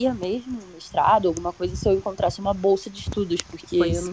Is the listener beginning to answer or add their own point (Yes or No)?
No